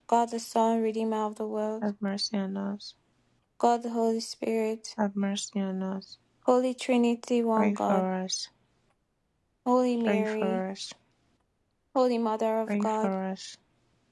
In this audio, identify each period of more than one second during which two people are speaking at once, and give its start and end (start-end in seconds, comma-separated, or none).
none